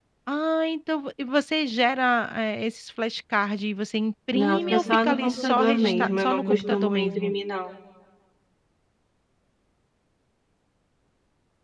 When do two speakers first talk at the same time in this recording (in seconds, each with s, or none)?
4.3 s